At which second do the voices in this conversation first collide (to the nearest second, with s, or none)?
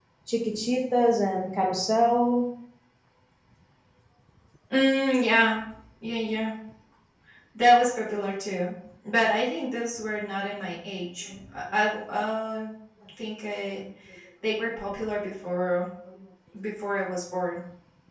none